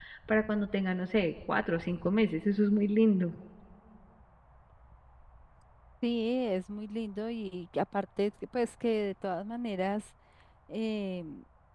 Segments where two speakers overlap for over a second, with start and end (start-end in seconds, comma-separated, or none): none